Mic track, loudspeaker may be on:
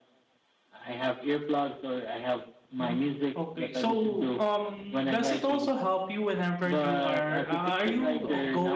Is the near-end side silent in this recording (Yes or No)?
No